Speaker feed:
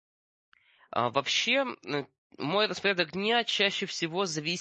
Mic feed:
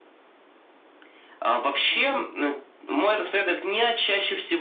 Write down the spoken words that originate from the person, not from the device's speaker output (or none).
Мгм.